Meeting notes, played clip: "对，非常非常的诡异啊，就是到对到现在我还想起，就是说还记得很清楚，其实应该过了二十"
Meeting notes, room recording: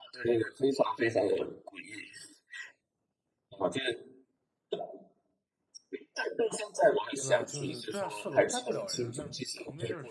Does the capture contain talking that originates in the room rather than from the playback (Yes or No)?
Yes